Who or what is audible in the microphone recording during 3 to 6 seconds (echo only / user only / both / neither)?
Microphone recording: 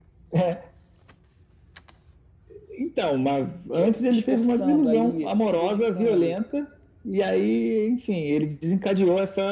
both